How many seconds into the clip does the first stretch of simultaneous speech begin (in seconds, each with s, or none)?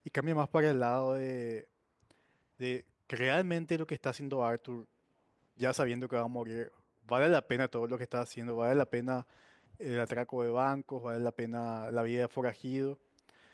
none